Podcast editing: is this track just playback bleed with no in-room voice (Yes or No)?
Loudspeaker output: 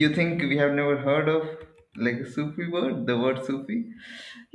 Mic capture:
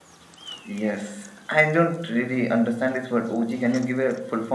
No